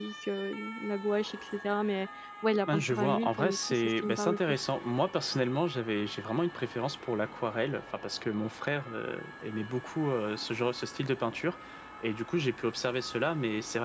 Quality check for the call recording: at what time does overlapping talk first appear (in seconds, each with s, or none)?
2.6 s